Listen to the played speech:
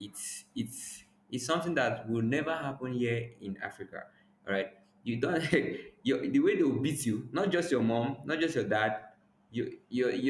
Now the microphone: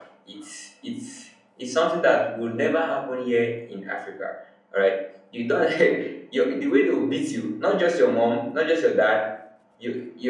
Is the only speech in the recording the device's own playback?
Yes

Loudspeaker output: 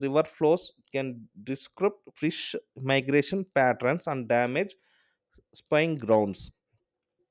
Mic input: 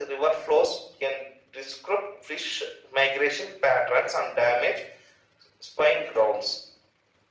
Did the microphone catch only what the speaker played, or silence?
Yes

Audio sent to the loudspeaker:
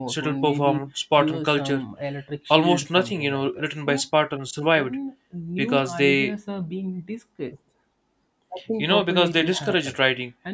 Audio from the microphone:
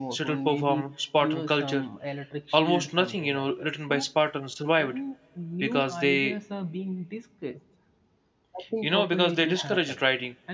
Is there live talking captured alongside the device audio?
No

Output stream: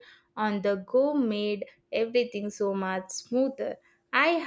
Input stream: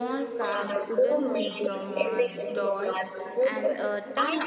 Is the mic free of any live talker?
No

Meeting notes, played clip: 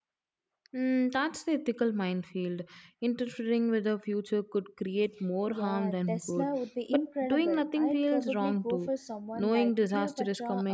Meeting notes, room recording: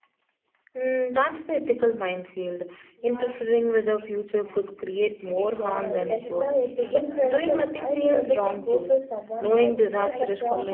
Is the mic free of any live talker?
No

